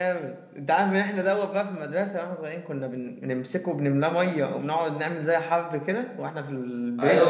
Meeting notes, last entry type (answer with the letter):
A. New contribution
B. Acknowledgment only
A